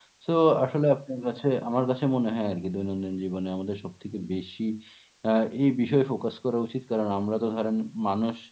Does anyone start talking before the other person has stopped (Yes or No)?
No